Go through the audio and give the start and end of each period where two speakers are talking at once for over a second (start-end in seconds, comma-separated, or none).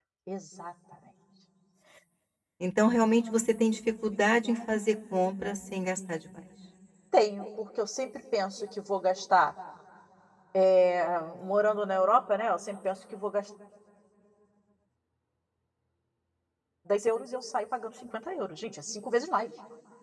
none